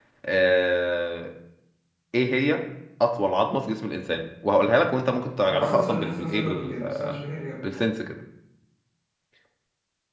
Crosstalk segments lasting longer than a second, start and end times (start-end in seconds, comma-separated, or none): 5.5-7.1